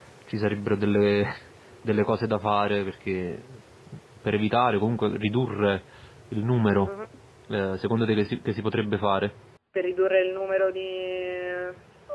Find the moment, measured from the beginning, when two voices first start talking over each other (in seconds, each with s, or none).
none